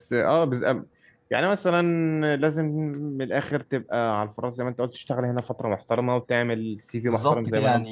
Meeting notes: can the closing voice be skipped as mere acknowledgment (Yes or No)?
No